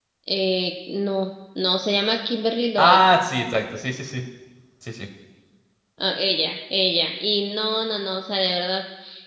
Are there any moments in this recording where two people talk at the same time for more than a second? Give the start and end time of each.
none

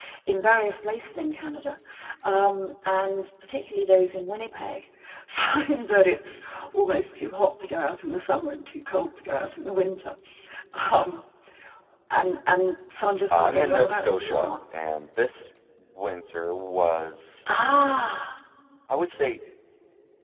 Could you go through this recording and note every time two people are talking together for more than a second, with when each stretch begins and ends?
13.3-14.5

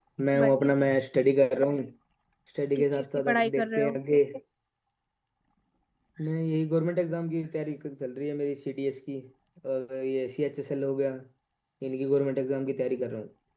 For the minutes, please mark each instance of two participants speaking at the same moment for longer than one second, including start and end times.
2.8-4.0

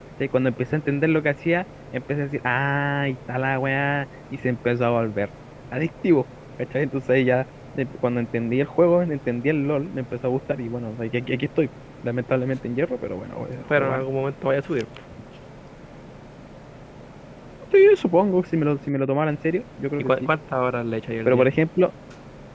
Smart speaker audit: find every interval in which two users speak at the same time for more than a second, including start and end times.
none

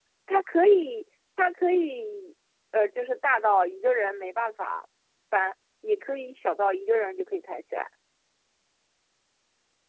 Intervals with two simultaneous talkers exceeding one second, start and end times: none

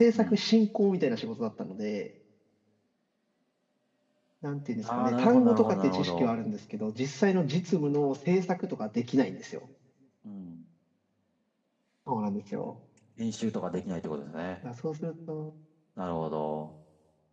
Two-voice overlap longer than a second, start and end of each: 4.8-6.3

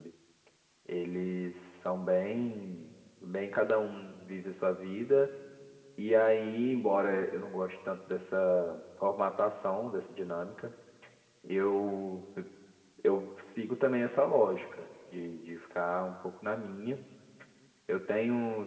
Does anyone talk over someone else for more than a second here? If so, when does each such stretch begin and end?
none

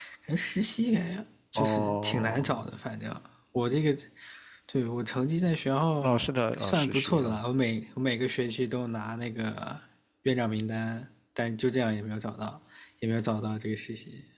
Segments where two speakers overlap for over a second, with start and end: 1.6-2.8, 6.0-7.4

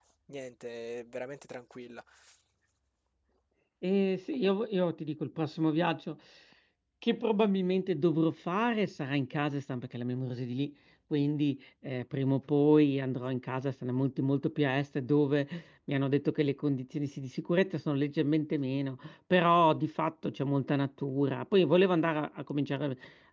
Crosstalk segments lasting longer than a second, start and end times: none

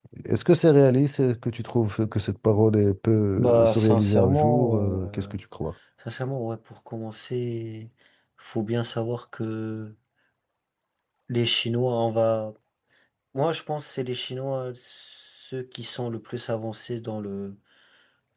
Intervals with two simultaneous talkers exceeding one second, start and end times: 3.4-5.3

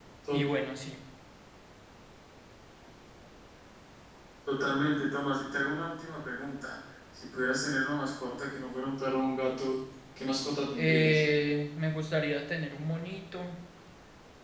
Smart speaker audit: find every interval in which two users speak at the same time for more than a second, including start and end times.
none

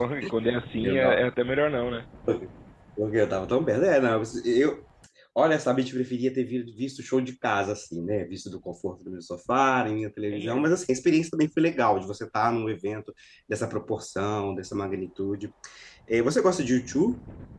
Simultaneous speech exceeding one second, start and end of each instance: none

